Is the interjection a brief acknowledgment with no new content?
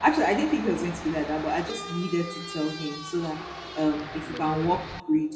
Yes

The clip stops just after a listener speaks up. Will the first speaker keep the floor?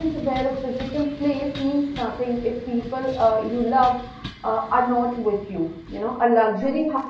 Yes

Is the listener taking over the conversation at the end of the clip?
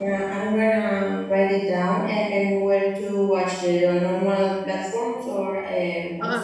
Yes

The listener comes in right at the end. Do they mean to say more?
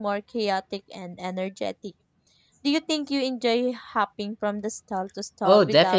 Yes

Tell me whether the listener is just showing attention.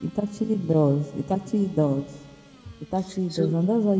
Yes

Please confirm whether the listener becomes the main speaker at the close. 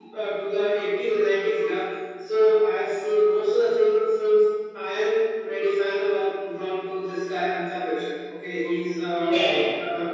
No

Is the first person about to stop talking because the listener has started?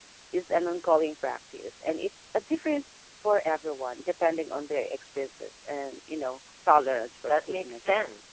Yes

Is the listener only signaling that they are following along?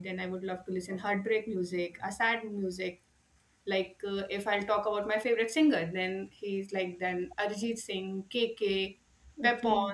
Yes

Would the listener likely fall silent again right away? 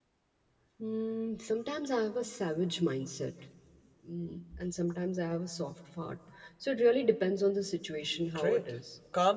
No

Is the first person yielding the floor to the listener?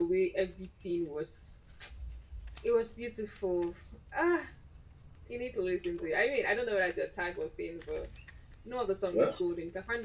No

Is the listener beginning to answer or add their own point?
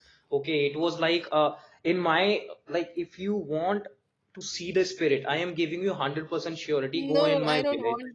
Yes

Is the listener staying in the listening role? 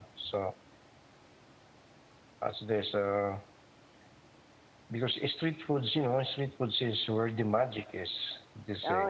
No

